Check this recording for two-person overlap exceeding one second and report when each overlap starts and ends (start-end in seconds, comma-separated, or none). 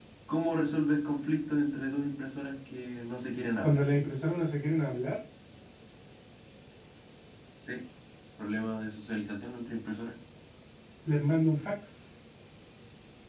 none